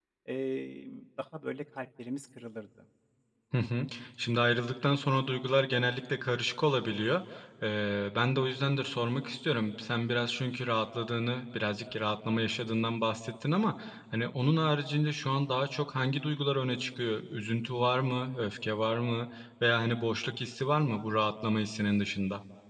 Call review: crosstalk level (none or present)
none